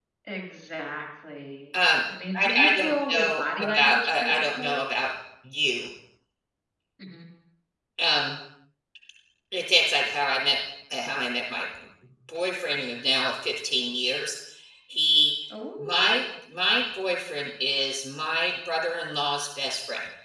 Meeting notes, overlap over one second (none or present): present